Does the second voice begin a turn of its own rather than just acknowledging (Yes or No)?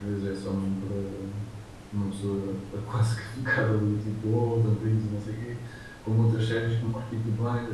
No